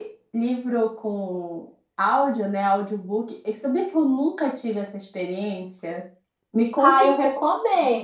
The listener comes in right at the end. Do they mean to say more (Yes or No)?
Yes